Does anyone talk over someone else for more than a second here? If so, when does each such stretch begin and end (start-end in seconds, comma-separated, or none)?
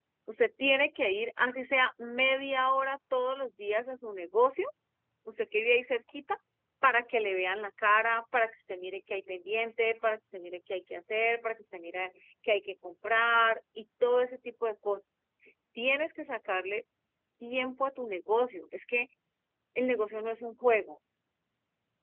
none